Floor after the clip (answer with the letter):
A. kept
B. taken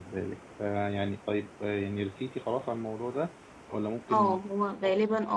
B